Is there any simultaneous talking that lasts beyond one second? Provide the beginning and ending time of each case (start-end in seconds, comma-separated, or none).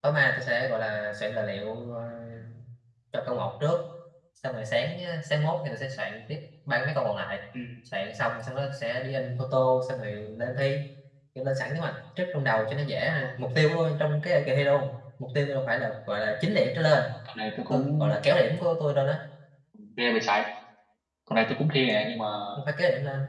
none